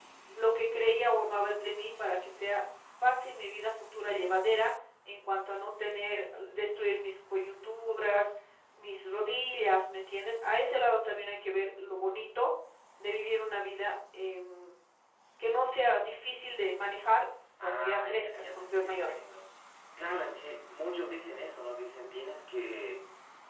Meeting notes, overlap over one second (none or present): present